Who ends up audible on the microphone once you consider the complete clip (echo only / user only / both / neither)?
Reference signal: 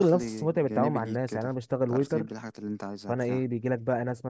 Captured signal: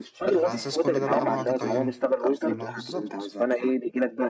both